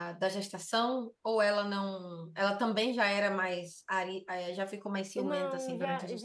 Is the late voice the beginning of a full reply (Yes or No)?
Yes